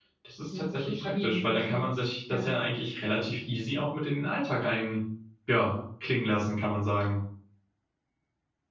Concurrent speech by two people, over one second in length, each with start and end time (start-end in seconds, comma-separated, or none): 0.5-1.9